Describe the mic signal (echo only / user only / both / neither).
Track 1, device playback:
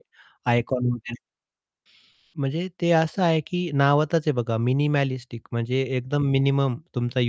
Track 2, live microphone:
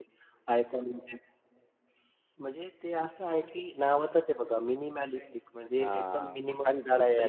both